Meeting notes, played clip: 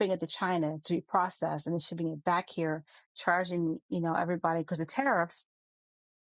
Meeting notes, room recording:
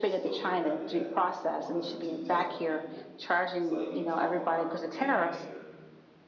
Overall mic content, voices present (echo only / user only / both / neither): both